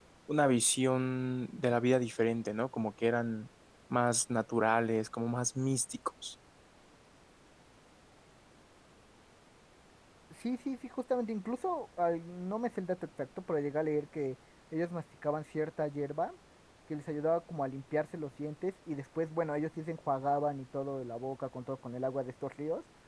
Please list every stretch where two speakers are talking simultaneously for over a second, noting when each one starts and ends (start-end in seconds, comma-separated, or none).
none